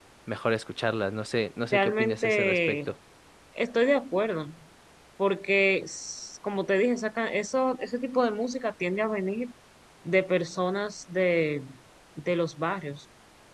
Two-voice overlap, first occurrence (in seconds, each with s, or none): 1.7 s